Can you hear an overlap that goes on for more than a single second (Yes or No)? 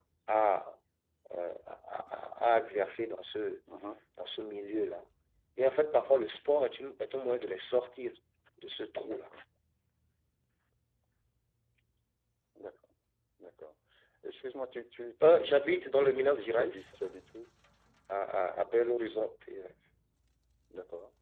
Yes